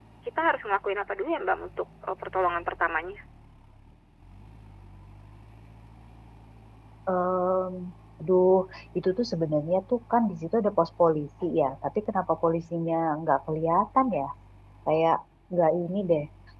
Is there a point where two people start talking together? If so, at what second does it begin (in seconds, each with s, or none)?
none